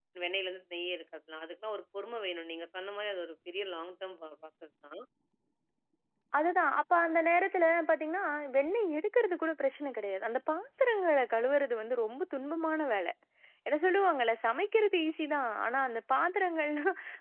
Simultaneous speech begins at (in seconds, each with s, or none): none